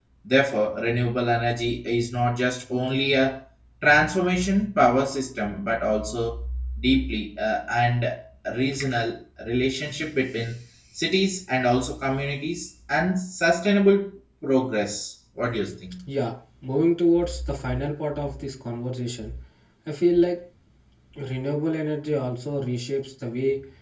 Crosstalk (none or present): none